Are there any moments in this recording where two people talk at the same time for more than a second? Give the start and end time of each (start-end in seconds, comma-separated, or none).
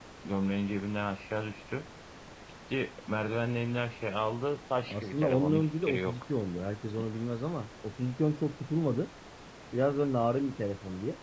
4.9-6.2